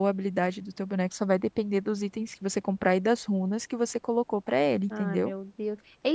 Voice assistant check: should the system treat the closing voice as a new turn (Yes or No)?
Yes